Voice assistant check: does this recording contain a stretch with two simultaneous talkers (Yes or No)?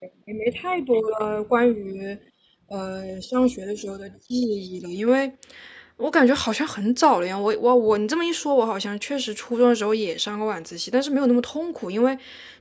No